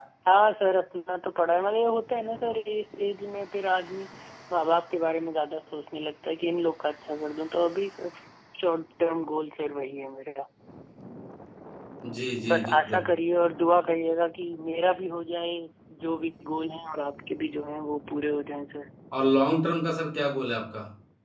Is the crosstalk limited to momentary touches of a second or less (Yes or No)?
Yes